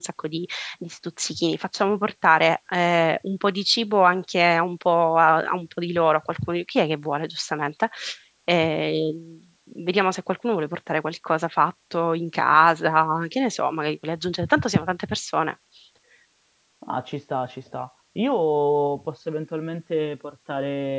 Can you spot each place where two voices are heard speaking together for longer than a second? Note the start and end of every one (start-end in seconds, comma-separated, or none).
none